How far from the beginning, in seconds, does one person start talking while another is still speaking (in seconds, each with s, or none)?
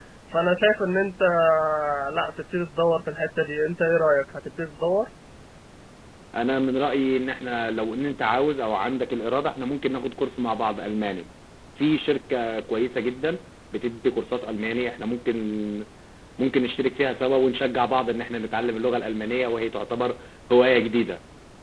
none